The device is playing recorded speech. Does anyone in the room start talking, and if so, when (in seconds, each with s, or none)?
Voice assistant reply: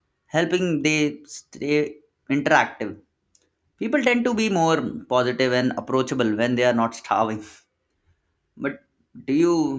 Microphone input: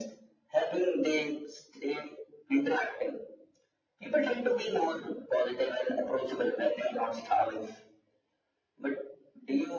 none